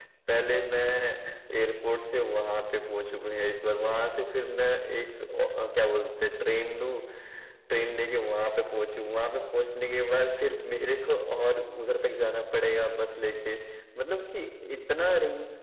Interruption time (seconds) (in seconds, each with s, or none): none